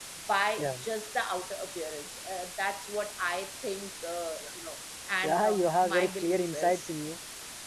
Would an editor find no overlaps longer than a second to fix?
No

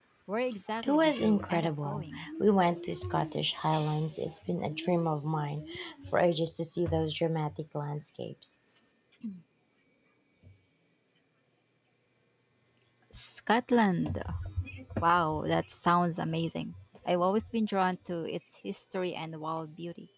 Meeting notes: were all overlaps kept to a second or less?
No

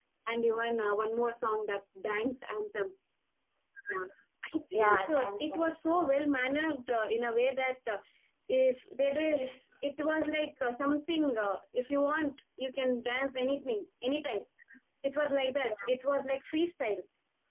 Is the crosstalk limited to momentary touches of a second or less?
No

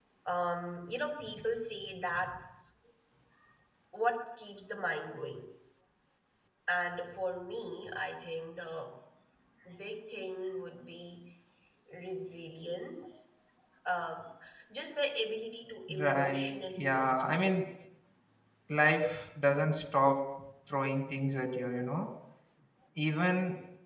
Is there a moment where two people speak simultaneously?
Yes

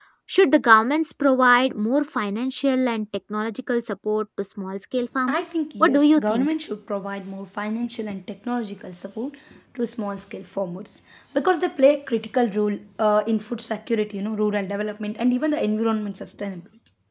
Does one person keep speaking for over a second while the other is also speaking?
Yes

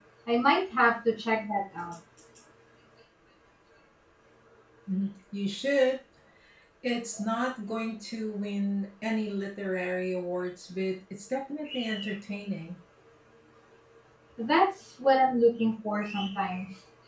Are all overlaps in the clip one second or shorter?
Yes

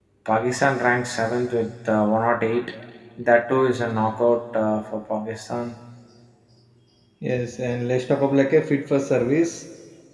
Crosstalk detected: No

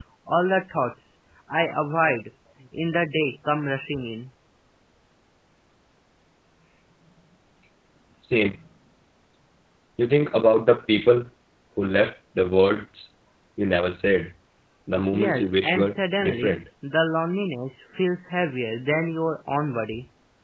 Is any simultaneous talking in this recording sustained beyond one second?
Yes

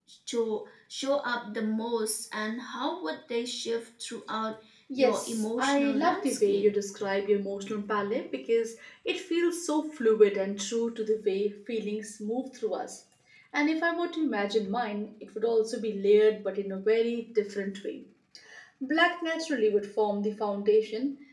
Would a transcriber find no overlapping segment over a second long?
No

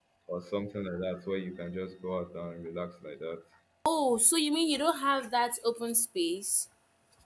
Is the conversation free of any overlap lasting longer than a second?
Yes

